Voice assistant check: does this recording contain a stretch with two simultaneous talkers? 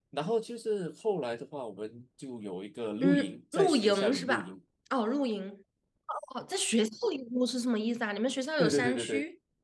Yes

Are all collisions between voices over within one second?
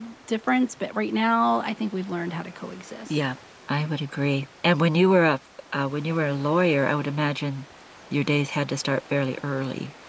Yes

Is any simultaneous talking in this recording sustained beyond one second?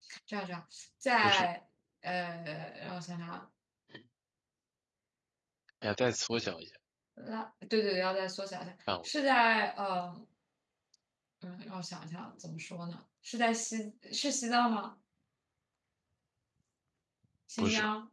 No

